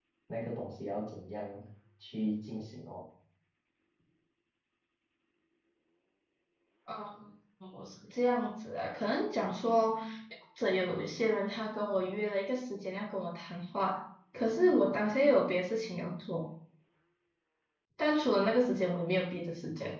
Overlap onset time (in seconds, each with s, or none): none